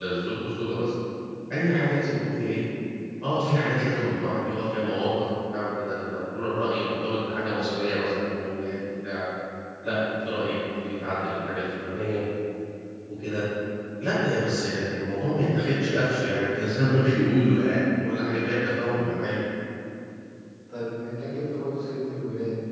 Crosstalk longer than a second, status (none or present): none